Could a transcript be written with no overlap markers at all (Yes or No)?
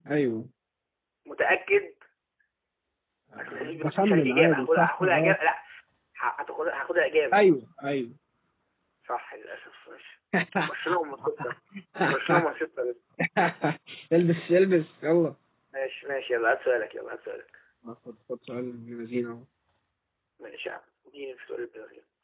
No